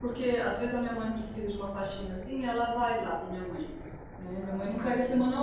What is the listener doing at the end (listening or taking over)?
listening